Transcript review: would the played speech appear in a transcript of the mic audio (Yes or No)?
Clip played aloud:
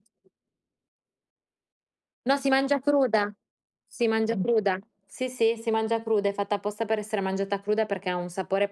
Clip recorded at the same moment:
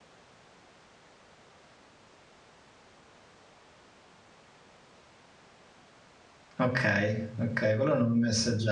No